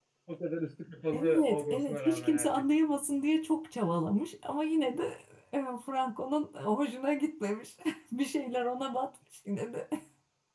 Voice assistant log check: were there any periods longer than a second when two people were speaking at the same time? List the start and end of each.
1.1-2.6

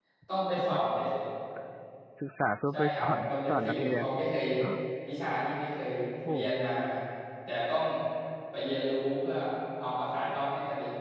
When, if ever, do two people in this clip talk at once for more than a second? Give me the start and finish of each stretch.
2.7-4.0

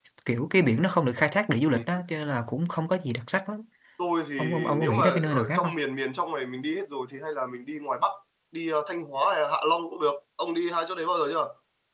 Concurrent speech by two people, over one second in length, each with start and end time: 4.4-5.7

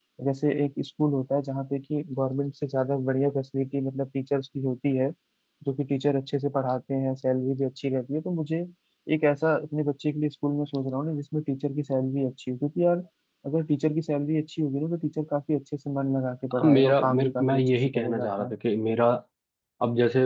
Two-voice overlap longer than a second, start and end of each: 16.6-18.5

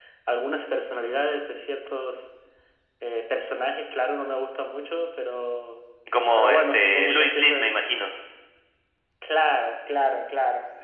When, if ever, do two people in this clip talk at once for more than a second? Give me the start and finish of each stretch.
6.3-7.7

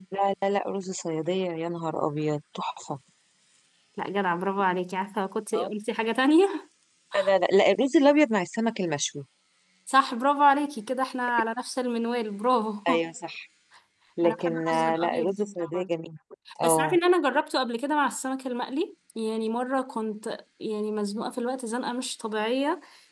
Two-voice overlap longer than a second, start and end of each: 14.2-15.9

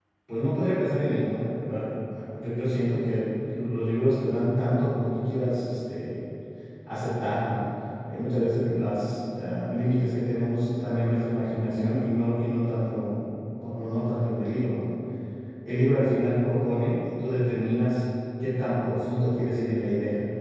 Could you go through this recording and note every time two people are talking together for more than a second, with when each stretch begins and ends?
none

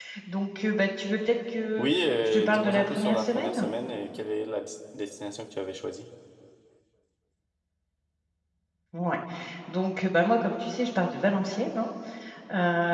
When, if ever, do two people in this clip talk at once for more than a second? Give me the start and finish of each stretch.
1.8-3.7

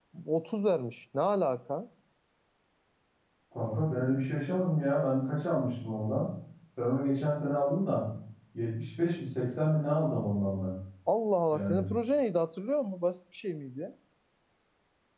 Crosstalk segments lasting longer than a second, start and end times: none

